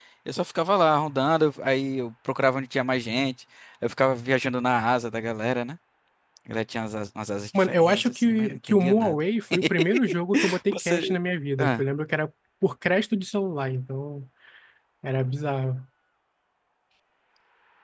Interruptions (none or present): present